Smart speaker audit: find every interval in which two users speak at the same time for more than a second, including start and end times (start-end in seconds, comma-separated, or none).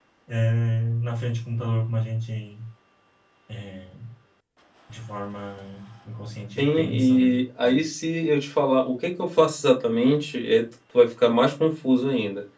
6.6-7.8